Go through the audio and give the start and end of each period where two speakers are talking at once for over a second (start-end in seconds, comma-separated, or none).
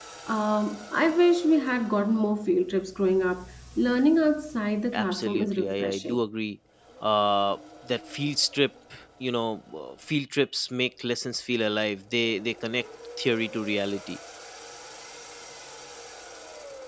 4.9-6.2